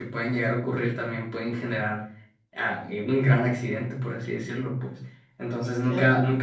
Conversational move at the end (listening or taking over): listening